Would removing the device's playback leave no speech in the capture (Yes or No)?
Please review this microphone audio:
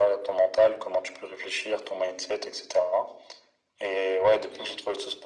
Yes